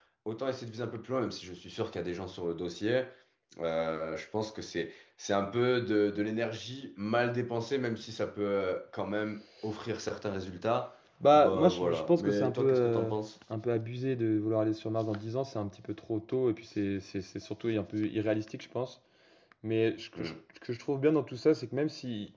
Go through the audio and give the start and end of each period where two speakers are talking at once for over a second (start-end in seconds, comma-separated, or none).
11.3-13.1